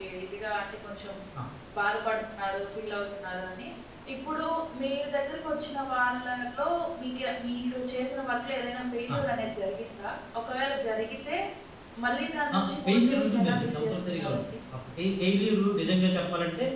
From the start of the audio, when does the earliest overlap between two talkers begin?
12.6 s

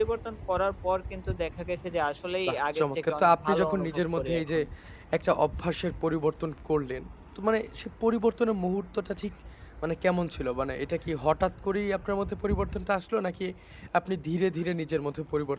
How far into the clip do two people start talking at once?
2.5 s

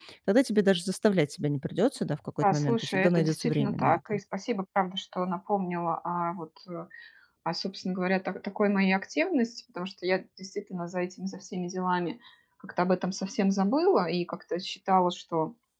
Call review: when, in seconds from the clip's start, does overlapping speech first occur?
2.4 s

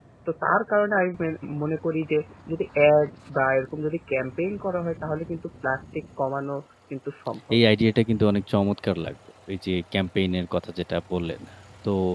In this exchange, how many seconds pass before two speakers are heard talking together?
none

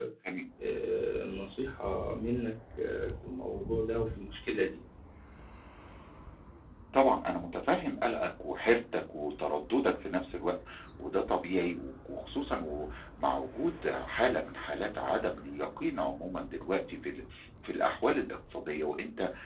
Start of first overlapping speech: none

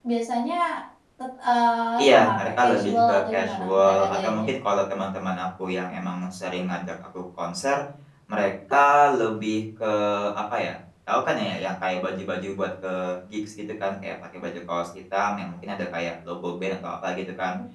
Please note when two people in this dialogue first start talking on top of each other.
2.0 s

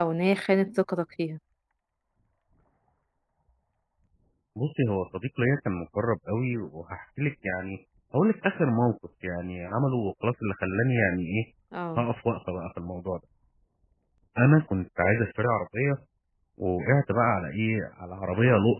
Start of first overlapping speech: none

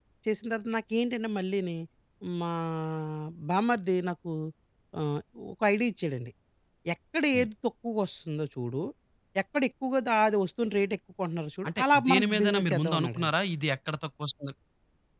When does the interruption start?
11.6 s

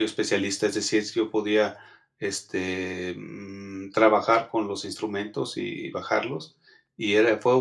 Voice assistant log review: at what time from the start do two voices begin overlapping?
none

